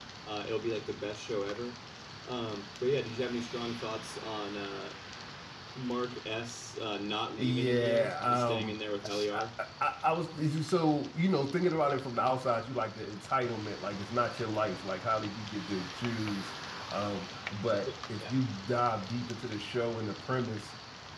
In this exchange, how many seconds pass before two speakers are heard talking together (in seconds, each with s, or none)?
7.4 s